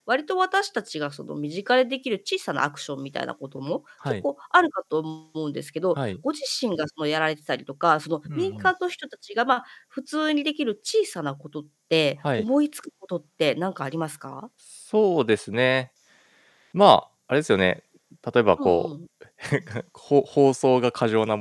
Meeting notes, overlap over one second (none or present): none